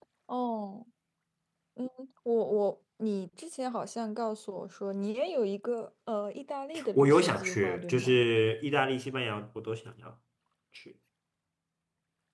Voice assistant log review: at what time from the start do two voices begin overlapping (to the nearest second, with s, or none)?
7 s